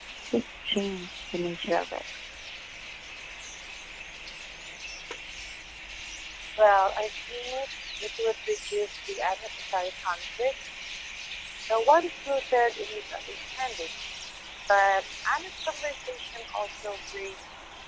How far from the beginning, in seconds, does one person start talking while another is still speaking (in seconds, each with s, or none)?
none